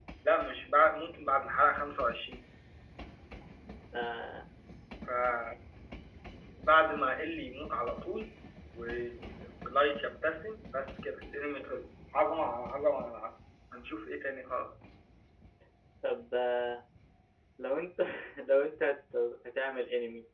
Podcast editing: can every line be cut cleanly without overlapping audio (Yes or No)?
Yes